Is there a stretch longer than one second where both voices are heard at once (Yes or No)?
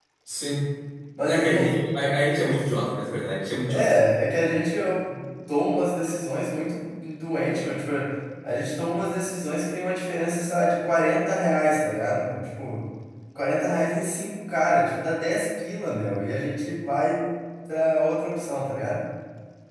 No